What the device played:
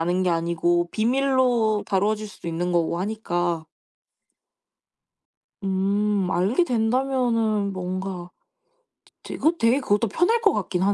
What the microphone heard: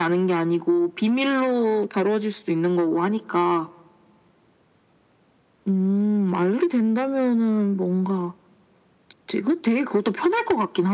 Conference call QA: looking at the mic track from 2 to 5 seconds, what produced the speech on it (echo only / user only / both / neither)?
echo only